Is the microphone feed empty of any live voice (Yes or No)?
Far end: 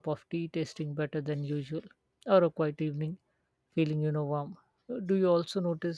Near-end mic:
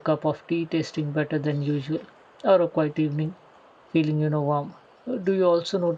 Yes